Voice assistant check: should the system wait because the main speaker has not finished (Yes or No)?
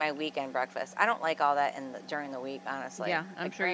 No